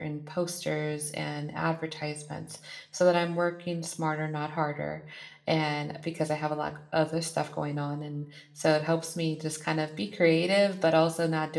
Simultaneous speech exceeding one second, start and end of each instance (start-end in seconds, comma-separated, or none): none